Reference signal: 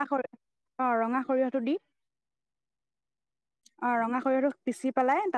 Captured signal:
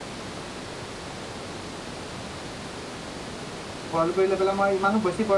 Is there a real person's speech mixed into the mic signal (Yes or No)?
Yes